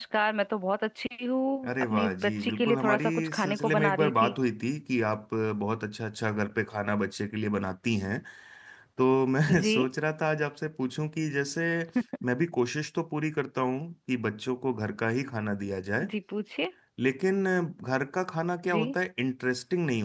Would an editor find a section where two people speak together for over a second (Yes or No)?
Yes